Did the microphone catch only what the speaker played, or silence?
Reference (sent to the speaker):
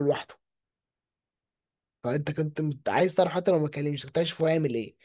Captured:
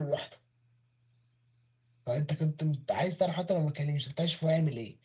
Yes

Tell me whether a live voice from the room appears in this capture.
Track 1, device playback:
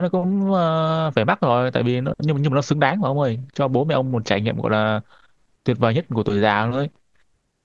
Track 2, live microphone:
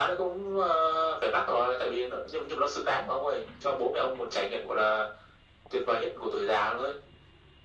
No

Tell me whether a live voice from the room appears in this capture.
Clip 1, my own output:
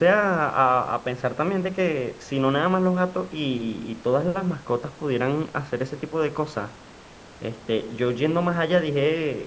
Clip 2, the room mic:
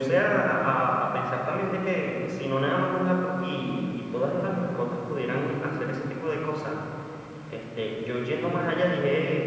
No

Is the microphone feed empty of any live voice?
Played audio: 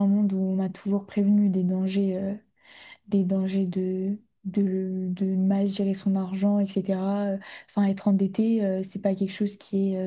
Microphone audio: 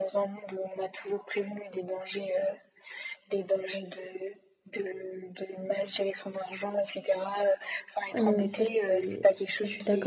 No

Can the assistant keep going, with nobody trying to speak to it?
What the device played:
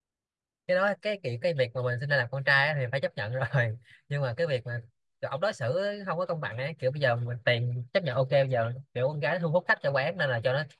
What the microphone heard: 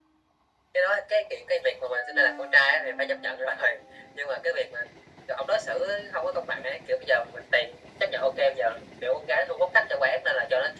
Yes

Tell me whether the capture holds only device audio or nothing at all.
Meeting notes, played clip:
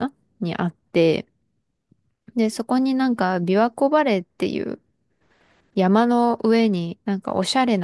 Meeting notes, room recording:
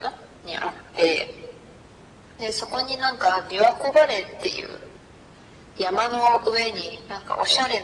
Yes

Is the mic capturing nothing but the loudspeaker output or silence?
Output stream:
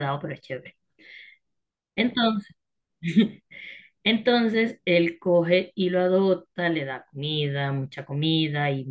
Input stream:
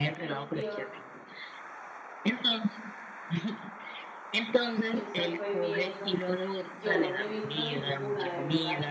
No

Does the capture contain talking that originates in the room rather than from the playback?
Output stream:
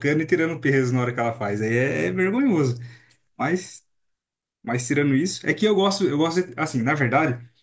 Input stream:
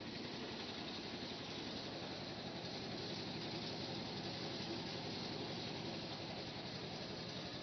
No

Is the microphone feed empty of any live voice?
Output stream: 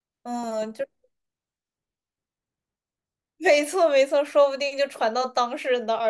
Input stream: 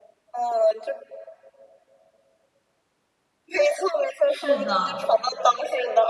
No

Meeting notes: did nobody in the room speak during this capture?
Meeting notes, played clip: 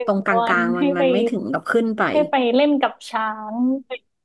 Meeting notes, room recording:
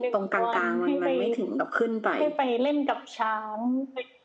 Yes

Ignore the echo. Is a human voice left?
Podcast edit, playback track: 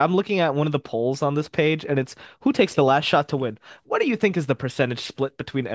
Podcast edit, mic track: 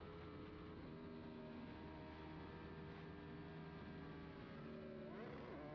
No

